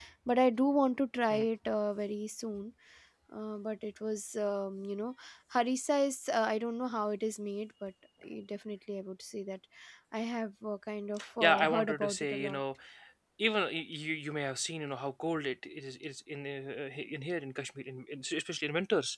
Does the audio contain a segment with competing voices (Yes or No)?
Yes